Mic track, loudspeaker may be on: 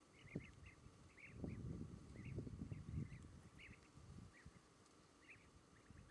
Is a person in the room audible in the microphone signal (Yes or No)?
No